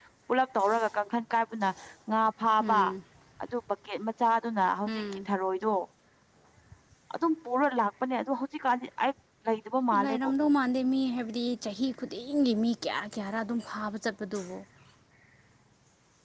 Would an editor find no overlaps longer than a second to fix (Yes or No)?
Yes